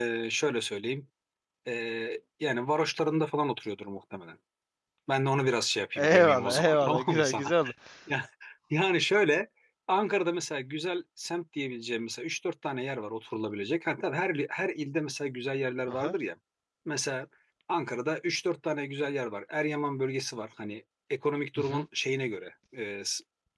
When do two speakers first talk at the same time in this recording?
6.0 s

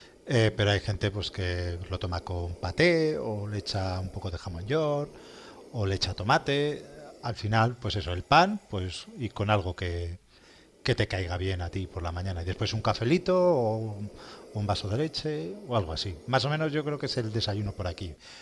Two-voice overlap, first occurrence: none

